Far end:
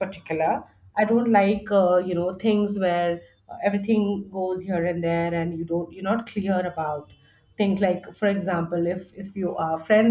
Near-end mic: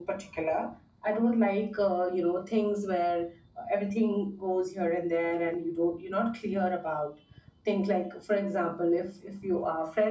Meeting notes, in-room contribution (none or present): none